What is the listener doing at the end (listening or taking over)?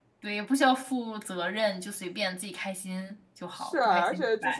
taking over